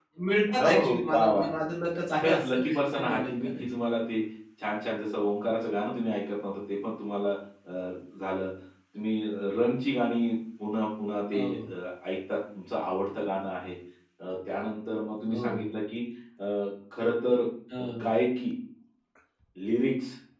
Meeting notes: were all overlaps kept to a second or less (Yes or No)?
No